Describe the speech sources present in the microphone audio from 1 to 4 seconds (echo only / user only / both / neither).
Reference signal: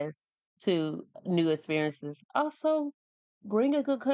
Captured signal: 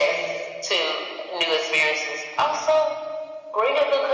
echo only